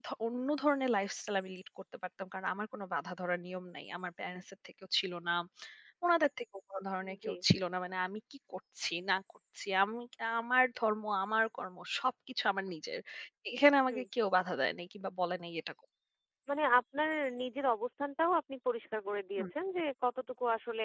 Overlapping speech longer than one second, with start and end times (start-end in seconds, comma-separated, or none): none